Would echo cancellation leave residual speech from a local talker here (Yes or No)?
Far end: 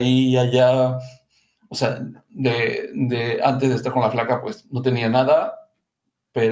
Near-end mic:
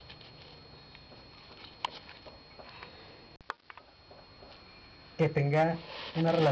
Yes